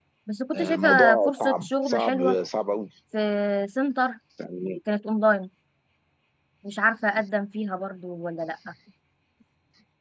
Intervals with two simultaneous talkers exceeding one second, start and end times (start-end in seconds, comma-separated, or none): 0.6-2.4